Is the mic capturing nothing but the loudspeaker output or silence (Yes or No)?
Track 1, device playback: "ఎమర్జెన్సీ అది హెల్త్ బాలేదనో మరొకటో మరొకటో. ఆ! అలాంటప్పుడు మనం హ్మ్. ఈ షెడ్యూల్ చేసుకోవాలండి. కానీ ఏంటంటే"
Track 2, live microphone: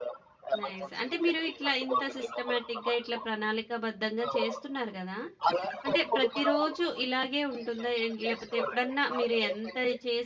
No